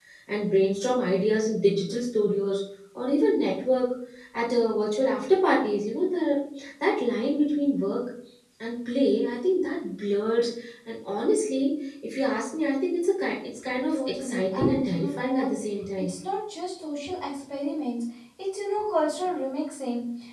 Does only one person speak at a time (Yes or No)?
No